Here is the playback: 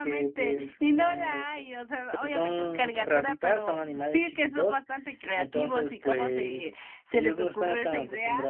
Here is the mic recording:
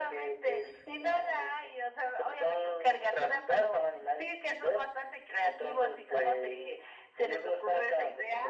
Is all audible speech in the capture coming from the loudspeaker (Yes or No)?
Yes